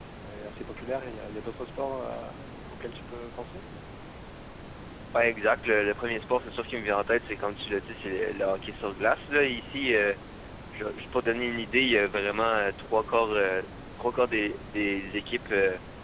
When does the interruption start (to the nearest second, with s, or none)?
none